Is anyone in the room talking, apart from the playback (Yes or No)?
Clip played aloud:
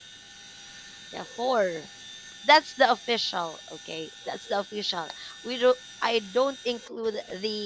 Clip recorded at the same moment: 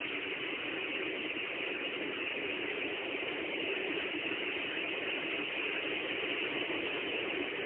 No